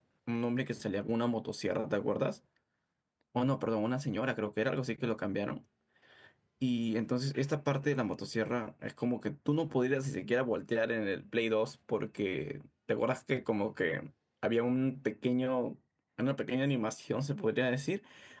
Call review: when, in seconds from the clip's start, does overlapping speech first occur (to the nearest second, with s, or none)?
none